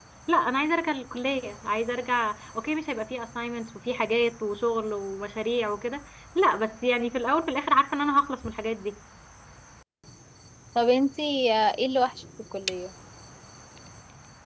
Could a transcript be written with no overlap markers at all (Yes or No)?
Yes